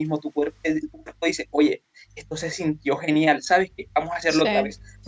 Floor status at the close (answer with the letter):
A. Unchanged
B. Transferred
A